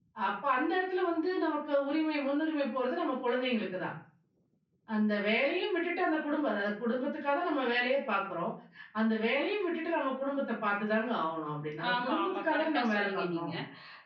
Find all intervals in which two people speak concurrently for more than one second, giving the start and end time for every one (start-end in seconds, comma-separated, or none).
11.9-13.5